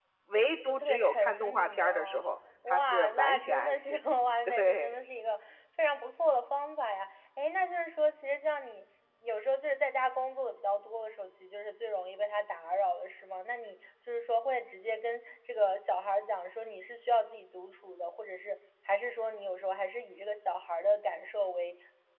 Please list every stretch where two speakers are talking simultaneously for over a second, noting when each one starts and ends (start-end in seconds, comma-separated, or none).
0.6-2.2, 2.7-4.0